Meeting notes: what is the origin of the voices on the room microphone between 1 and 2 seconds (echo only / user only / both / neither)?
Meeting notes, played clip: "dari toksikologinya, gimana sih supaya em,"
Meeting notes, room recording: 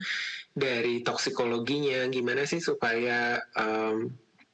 echo only